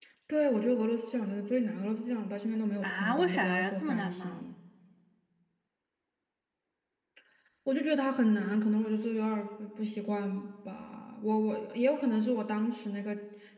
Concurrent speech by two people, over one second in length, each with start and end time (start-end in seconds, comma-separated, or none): 2.8-4.5